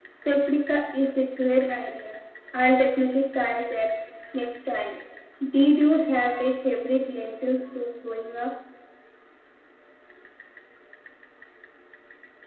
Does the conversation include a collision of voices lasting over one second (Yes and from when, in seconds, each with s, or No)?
No